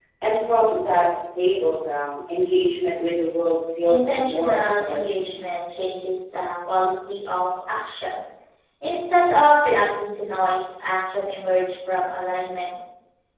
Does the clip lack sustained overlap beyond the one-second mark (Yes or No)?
No